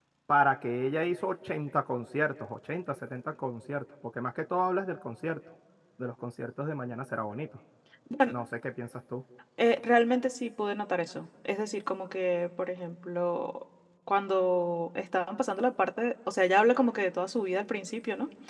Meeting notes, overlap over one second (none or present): none